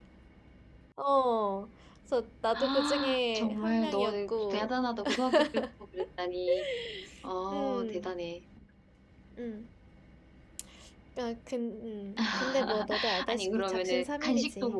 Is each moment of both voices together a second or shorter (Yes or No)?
No